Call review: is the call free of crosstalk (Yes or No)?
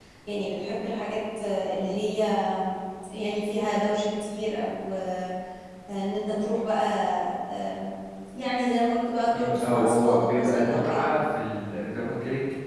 No